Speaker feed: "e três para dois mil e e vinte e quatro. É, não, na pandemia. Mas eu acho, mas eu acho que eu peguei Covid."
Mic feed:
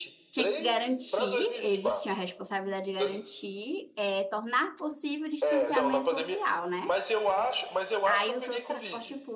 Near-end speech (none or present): present